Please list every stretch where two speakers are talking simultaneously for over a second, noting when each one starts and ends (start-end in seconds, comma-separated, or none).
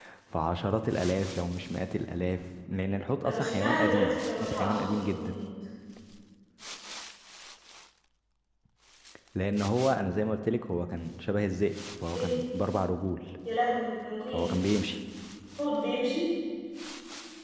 3.2-5.4